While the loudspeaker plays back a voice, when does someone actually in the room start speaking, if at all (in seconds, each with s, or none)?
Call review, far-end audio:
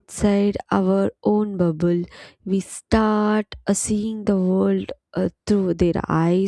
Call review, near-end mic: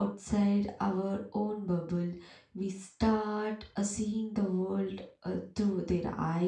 none